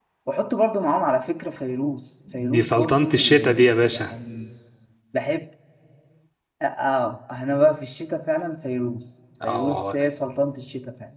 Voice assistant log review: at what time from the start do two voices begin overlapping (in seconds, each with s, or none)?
2.5 s